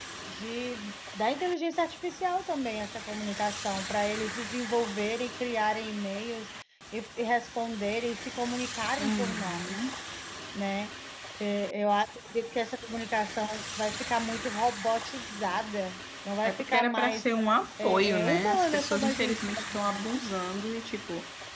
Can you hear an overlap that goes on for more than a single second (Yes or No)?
Yes